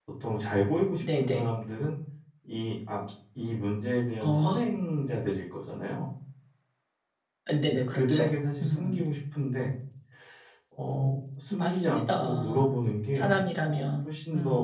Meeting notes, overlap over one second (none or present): present